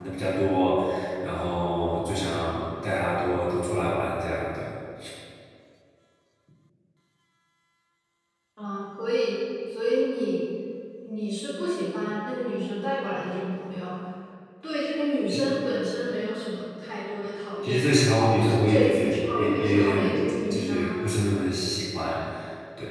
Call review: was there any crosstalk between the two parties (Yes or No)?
Yes